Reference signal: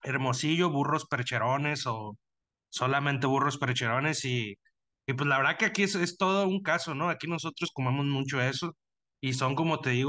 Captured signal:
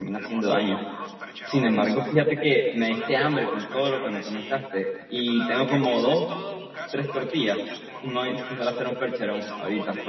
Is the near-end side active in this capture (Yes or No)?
Yes